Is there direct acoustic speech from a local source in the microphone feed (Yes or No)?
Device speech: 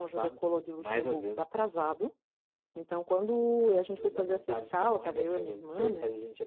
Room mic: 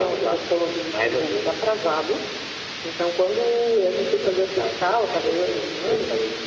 No